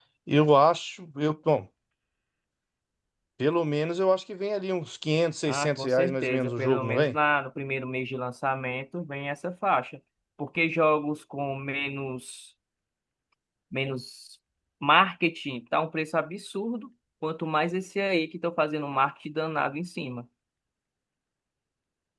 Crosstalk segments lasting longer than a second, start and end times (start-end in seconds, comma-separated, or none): 5.5-7.2